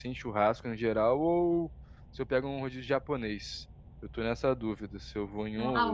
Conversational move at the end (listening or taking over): taking over